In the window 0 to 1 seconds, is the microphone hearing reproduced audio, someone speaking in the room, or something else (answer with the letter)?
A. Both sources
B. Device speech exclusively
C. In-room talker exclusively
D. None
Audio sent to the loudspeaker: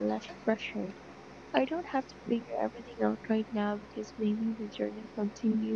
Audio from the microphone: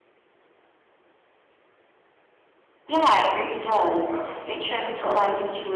D